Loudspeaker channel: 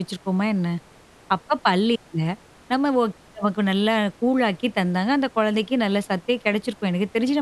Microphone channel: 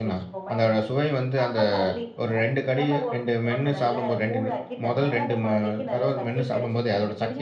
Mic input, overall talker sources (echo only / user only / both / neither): both